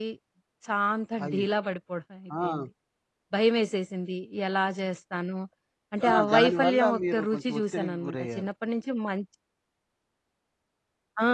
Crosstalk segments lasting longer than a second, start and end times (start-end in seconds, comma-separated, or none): 6.1-8.5